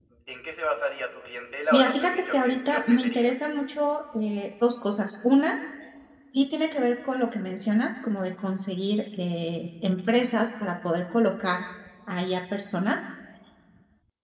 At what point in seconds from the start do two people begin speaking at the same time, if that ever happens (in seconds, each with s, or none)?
1.7 s